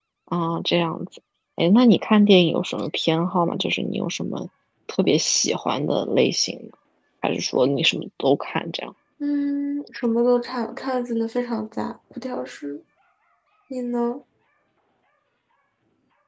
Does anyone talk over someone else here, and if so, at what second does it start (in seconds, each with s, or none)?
none